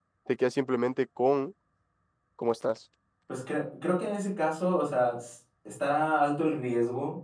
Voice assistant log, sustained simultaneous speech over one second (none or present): none